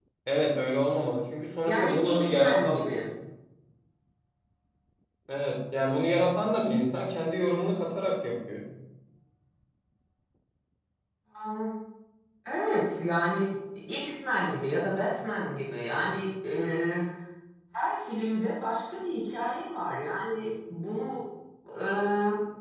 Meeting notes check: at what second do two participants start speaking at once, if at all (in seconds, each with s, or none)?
1.7 s